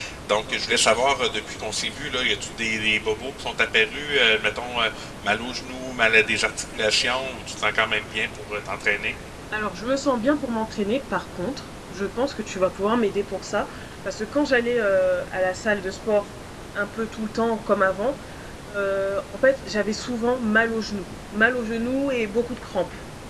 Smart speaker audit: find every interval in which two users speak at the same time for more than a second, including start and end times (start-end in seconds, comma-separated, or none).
none